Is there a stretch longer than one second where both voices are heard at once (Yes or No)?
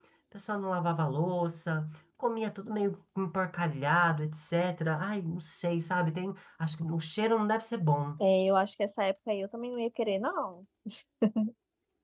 No